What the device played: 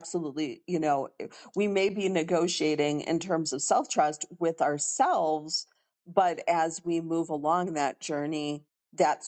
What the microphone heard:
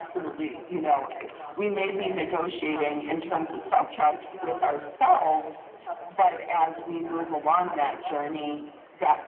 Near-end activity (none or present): present